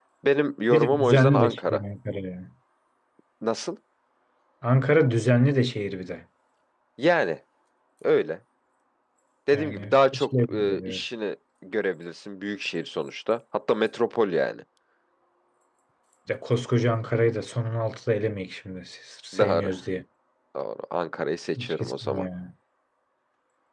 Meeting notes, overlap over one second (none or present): present